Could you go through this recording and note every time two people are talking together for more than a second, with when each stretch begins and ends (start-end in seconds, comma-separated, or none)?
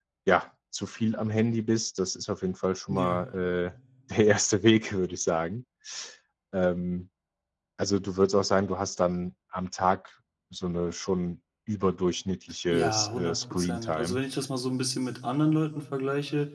12.7-14.2